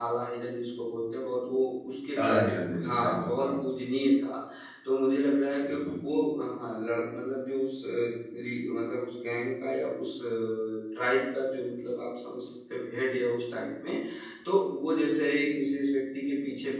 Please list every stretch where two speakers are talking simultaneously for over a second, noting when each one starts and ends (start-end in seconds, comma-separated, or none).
2.2-3.5